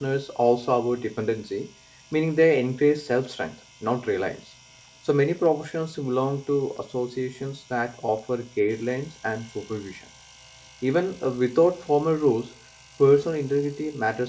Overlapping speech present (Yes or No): No